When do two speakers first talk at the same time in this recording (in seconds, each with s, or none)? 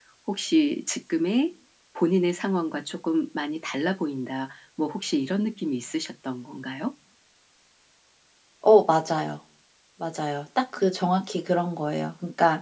none